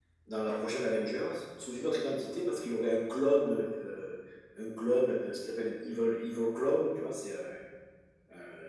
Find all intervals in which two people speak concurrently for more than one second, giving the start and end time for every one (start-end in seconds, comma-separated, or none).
none